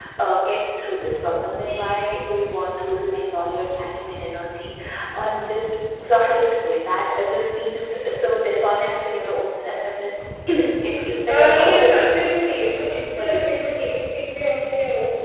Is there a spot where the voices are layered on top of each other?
Yes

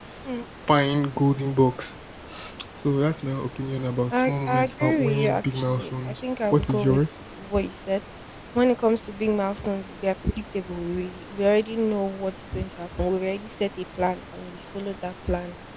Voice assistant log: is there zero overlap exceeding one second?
No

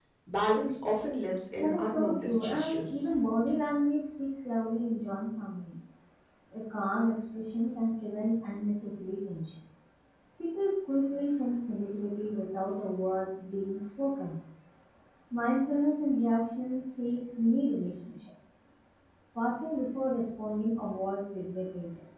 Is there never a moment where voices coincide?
No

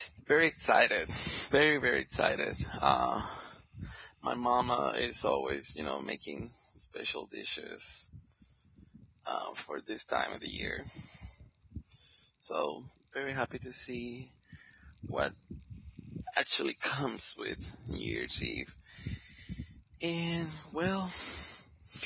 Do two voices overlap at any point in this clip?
No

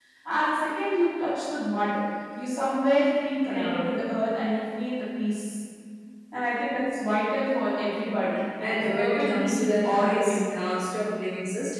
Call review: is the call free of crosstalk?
No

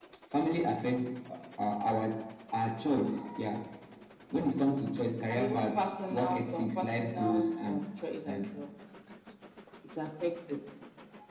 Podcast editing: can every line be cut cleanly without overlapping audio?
No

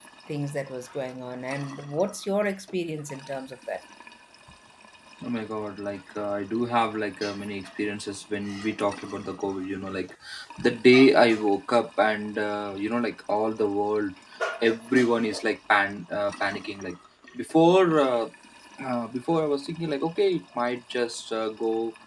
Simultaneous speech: No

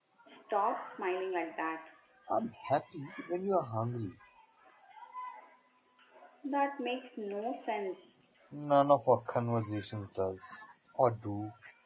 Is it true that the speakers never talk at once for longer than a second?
Yes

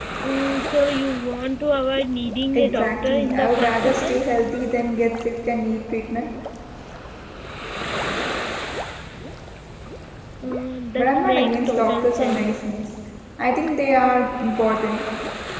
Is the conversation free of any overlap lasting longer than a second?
No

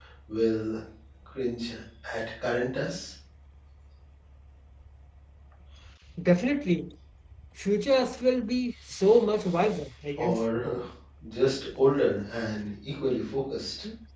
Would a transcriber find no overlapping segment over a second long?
Yes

